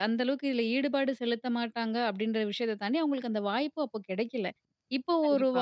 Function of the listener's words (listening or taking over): listening